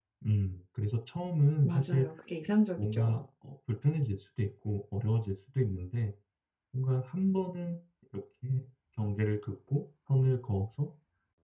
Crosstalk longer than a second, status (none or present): none